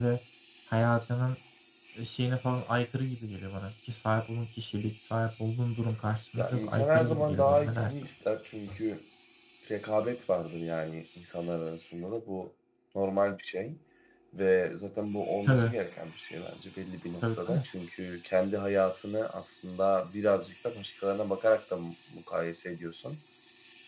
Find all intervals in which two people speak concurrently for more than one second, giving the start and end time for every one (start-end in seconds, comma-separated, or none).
6.4-7.9